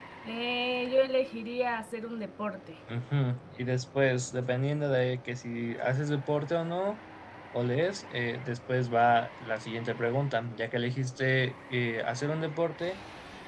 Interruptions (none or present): none